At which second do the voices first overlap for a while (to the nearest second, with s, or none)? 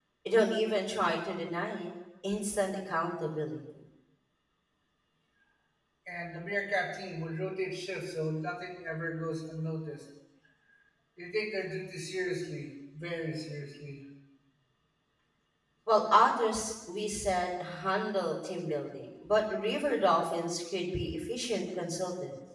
none